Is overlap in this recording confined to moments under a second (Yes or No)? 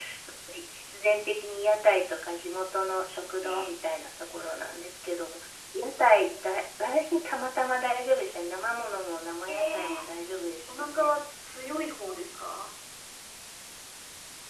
Yes